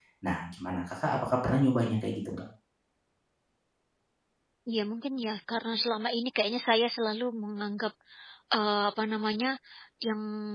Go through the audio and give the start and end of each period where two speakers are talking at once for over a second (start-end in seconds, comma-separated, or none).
none